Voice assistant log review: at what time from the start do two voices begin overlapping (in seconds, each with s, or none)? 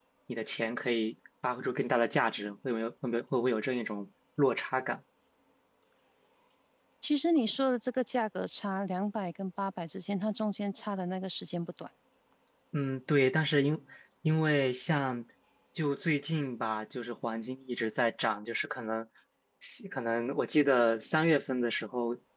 none